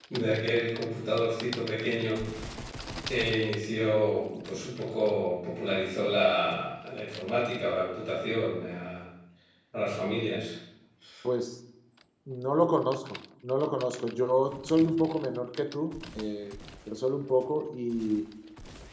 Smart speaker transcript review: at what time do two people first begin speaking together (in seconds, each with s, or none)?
none